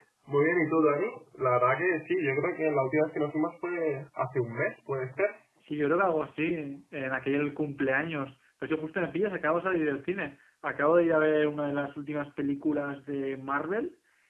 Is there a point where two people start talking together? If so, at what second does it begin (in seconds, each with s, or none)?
none